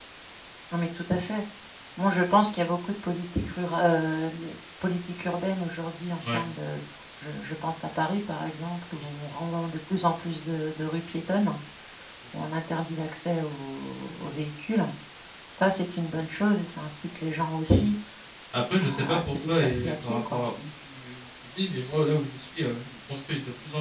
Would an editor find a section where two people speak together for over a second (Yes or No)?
Yes